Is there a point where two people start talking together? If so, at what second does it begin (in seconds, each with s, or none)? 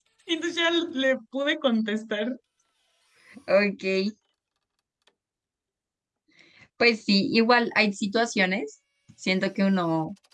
none